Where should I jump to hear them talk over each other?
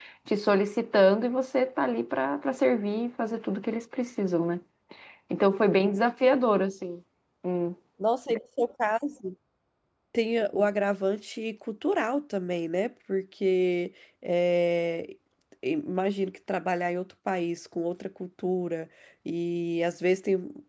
none

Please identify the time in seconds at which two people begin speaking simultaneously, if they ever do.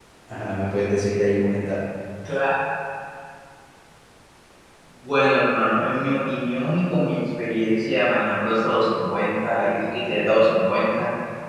none

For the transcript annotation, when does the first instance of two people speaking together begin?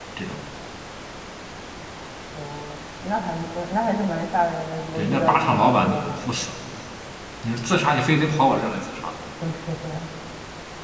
5.0 s

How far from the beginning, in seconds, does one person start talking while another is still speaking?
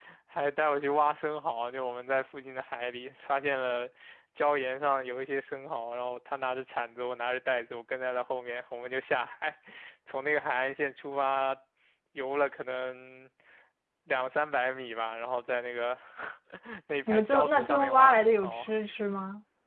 17.1 s

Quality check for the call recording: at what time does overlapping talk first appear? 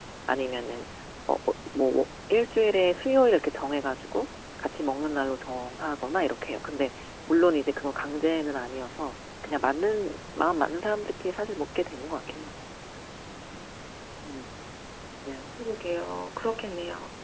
none

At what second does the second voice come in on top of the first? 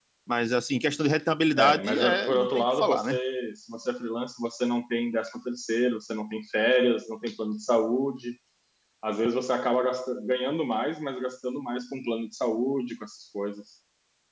1.6 s

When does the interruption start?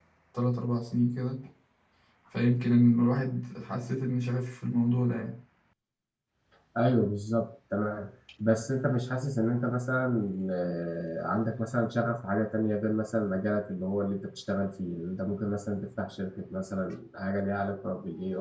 none

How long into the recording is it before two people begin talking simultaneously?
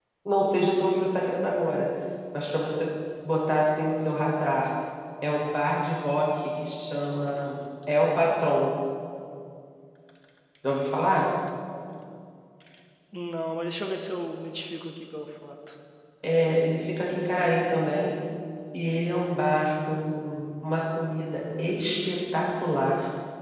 none

